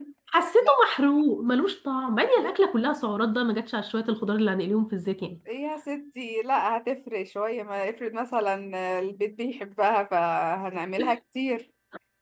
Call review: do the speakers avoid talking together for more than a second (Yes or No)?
Yes